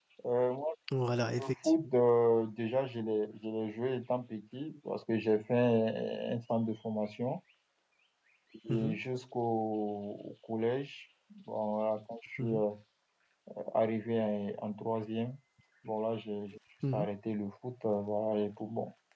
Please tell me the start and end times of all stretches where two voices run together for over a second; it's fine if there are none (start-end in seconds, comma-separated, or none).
none